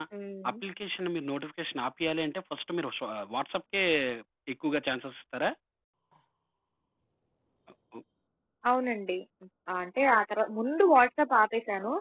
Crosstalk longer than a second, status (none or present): none